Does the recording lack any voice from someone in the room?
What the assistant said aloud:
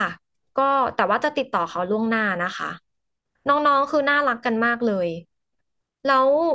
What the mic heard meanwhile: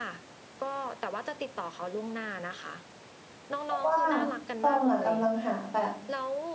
No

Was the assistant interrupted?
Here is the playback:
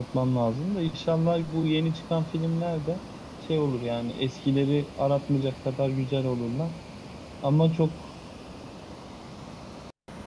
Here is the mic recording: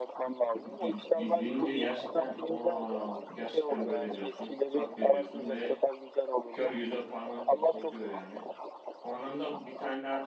Yes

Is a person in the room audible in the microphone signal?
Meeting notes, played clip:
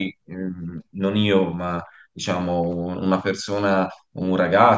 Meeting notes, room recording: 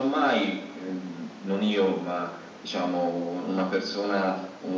No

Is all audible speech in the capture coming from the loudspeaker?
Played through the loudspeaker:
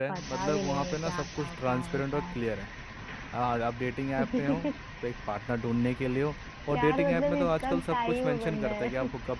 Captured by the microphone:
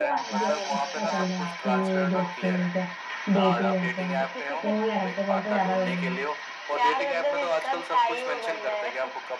No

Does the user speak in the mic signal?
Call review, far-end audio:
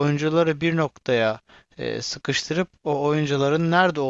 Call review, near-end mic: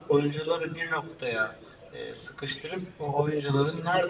No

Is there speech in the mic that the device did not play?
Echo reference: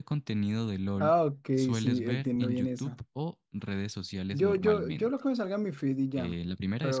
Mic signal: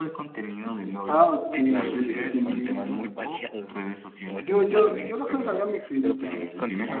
Yes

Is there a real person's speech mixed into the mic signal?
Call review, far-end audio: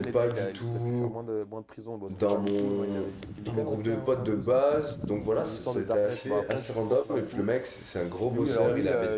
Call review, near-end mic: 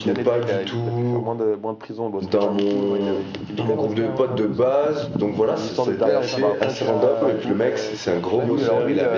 Yes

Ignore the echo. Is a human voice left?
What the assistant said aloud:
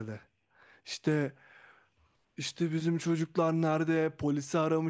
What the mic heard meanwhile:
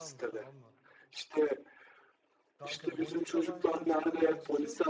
Yes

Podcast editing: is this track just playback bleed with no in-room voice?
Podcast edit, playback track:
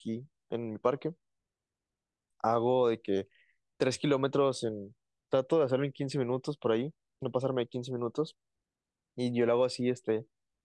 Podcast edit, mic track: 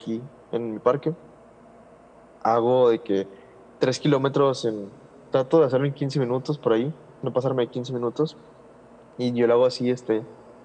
Yes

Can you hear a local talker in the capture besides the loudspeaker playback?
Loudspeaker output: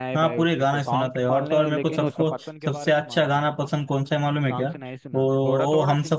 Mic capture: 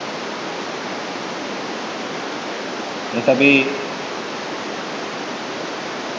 Yes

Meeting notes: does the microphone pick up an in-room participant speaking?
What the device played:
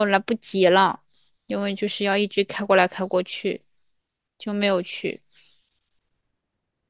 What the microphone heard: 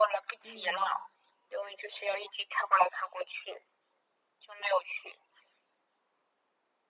Yes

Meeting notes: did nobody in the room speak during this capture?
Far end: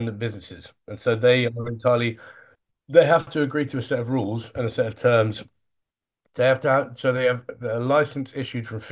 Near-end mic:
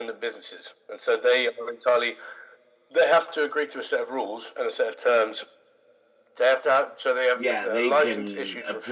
No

